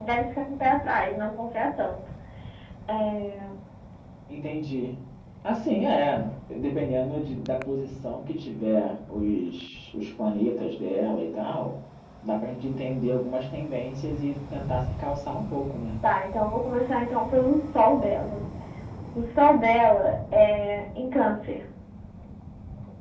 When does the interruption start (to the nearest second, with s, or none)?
none